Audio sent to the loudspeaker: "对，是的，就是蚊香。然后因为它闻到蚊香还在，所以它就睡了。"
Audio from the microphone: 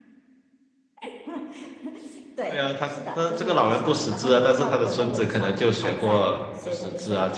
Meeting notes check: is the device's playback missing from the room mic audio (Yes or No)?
No